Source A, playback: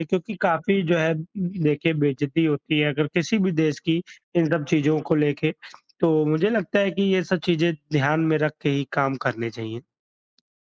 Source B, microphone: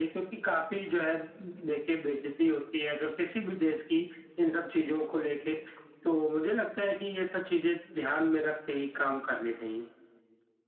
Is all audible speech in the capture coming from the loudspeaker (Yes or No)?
Yes